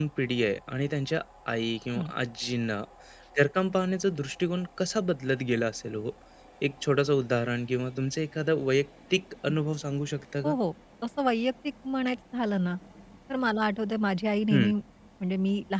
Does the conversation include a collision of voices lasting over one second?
No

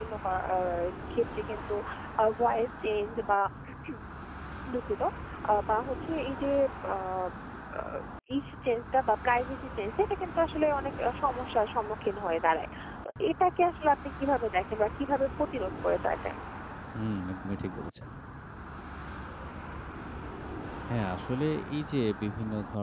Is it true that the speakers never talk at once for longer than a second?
Yes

